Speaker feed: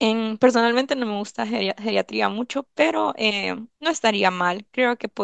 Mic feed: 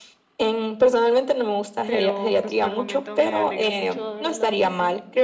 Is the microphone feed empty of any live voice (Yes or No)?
No